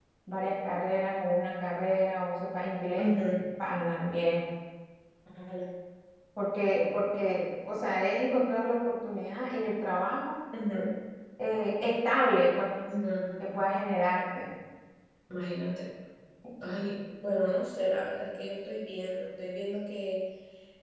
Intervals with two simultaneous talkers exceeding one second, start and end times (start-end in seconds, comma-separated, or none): none